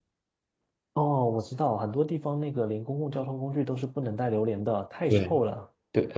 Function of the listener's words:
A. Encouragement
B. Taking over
B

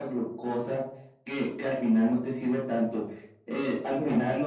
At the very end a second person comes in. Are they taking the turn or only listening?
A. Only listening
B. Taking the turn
A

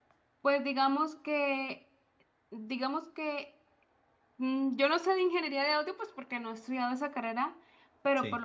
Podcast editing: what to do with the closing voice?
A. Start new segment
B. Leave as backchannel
B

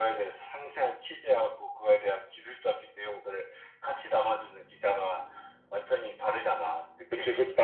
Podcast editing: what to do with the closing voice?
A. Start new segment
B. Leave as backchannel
A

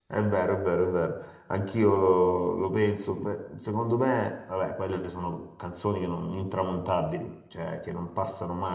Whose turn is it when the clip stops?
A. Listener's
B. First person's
B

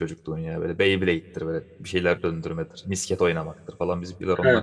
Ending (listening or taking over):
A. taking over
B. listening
A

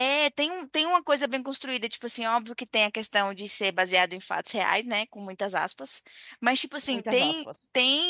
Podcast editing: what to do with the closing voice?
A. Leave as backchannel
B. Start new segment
A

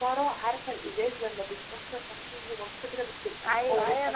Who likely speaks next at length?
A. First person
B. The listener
B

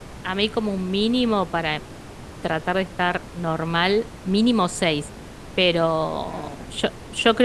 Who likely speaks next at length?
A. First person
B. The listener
A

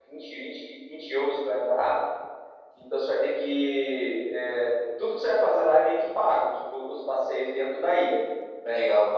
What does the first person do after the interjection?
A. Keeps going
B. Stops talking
A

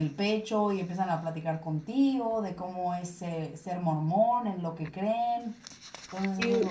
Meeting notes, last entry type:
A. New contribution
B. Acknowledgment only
A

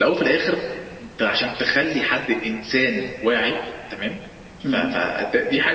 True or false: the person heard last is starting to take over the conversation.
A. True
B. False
B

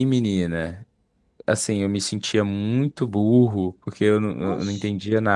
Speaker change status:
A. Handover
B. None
B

